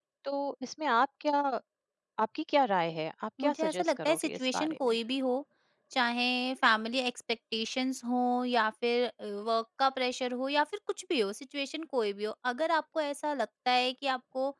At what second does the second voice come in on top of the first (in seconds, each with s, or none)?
3.4 s